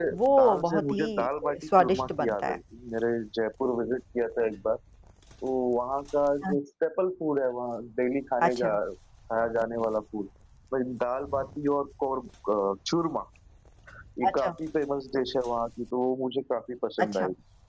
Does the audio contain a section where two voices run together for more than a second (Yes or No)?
Yes